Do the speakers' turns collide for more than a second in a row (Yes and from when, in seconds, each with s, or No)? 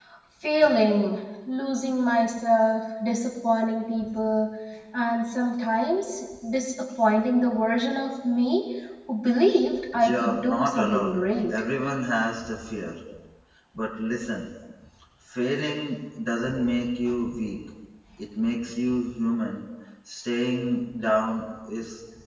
Yes, from 9.8 s